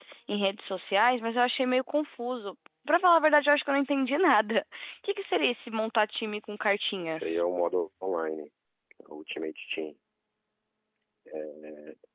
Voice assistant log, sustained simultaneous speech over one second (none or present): none